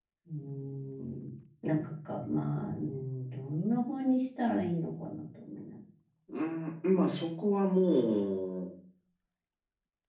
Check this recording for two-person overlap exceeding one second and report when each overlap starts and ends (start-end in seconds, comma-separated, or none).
none